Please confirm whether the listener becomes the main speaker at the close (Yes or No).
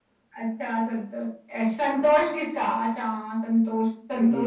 No